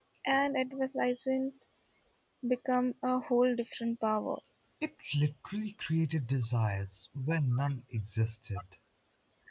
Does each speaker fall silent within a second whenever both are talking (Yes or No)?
Yes